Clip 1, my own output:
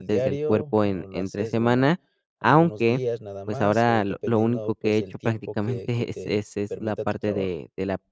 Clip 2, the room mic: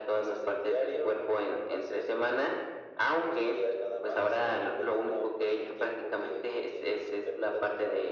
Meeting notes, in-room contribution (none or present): none